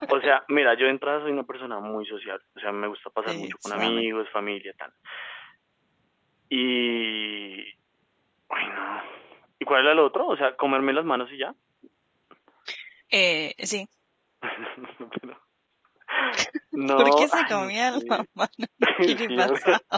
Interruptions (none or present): present